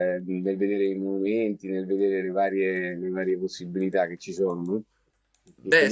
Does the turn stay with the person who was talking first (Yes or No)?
No